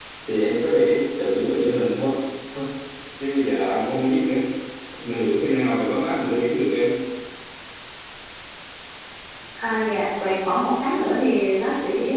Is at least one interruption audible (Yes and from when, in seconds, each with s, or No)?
No